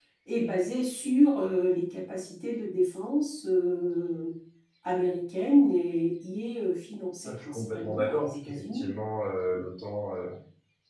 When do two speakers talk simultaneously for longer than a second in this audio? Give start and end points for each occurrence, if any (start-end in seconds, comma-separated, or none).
7.2-8.9